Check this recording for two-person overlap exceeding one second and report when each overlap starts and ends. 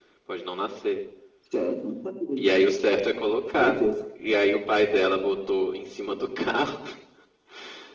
none

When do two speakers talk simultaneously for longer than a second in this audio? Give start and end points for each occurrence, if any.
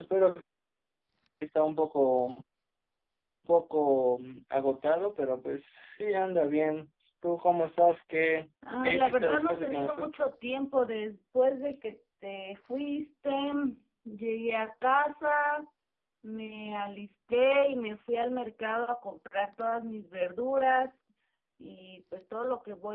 8.8-10.1

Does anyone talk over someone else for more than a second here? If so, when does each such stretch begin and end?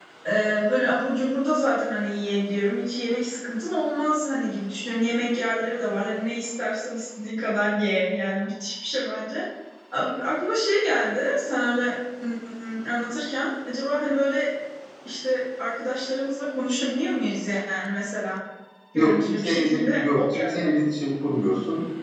18.9-20.7

